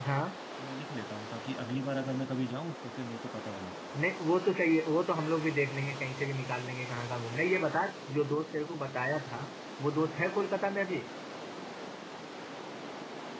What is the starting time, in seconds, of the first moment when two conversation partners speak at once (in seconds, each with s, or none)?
none